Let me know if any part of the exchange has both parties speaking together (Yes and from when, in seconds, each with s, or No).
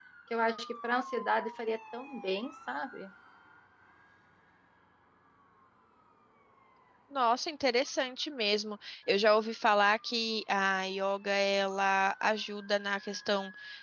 No